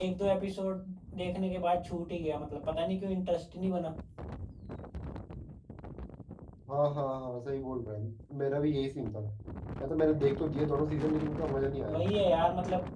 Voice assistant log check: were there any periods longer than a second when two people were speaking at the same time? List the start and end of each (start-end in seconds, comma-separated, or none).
none